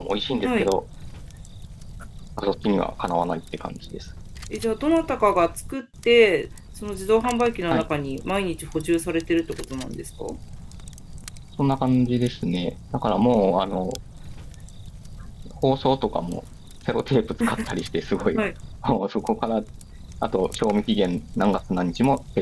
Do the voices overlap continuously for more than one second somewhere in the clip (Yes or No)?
No